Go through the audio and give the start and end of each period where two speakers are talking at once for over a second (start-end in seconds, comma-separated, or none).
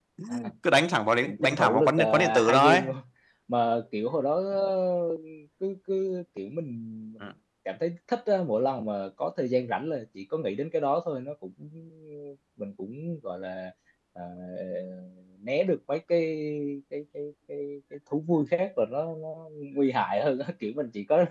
1.2-2.8